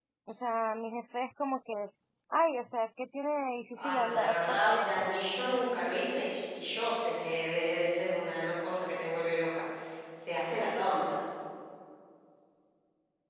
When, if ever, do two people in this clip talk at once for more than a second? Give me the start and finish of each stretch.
3.7-5.1

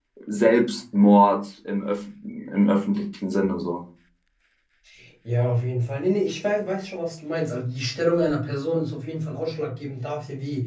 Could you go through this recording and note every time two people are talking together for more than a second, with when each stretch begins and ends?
none

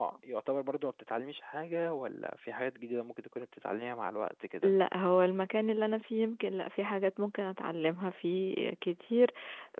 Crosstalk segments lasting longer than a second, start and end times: none

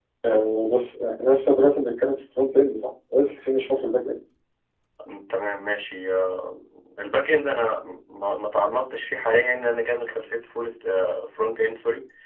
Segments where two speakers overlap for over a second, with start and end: none

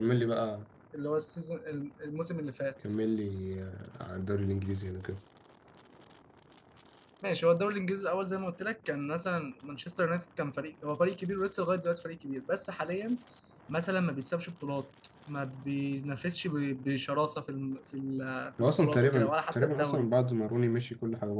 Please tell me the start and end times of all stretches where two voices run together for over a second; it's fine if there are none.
18.6-20.1

